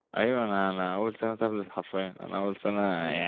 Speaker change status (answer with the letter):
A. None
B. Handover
A